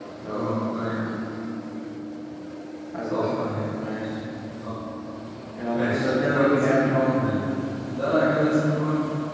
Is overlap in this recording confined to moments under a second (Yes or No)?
No